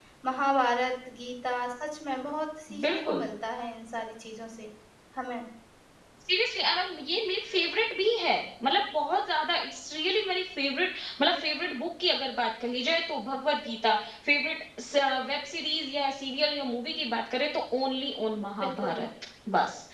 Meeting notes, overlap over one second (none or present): none